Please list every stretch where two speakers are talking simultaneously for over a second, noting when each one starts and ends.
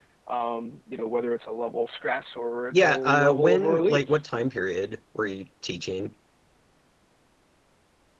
2.7-4.0

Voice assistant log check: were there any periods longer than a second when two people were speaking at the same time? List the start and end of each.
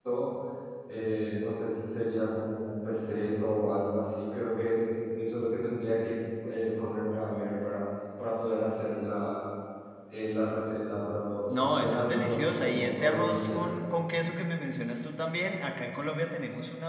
11.5-13.7

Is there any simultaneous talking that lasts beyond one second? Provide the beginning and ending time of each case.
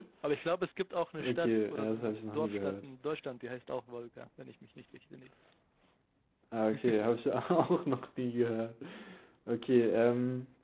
1.2-2.8

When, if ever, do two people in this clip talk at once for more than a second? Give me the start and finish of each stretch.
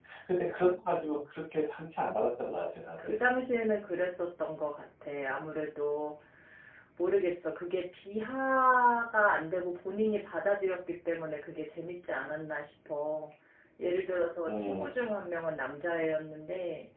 none

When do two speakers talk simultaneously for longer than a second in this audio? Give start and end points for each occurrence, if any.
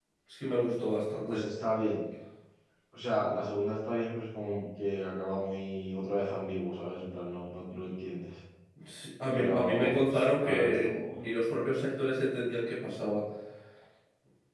9.3-11.2

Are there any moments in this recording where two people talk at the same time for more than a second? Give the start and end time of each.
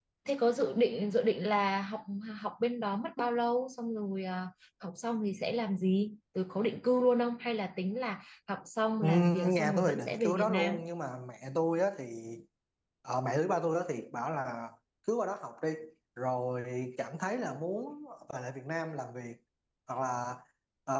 9.0-10.8

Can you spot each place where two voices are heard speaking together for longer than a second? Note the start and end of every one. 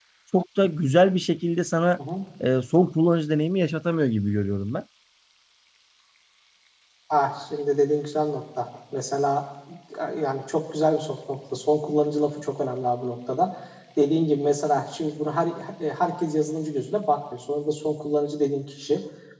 none

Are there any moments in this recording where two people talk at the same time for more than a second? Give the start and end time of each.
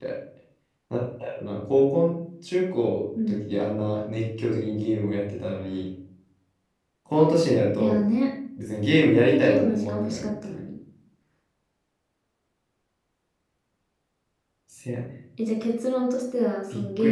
9.0-10.6

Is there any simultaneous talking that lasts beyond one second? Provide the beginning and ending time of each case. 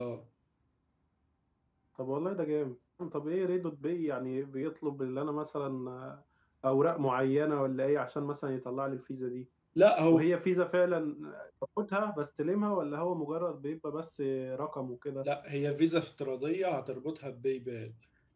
none

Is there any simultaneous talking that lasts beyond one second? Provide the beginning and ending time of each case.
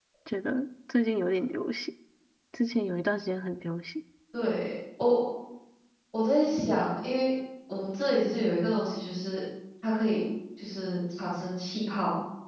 none

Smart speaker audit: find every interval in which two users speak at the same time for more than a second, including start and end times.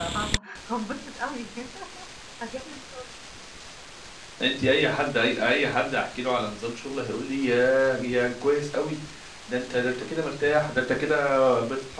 none

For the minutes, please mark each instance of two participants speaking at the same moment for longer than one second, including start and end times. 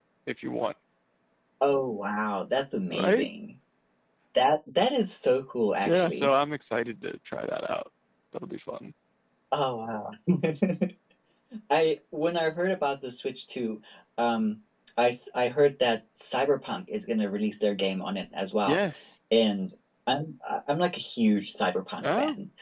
none

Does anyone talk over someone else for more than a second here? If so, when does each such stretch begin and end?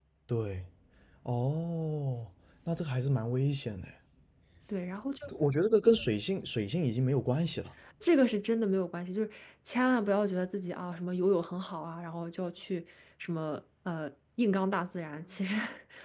none

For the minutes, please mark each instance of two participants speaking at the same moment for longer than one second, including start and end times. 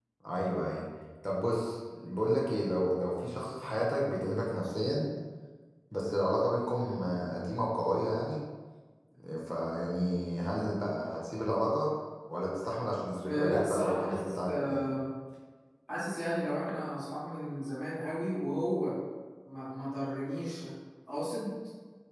13.2-14.8

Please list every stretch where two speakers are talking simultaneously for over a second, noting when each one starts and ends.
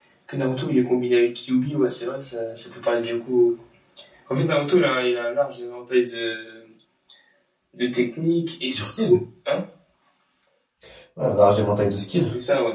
none

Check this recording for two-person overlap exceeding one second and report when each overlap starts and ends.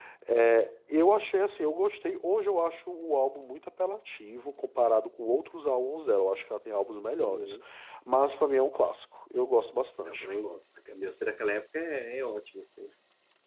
none

